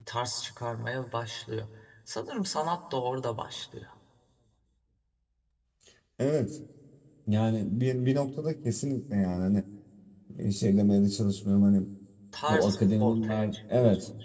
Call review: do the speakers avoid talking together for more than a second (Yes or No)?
No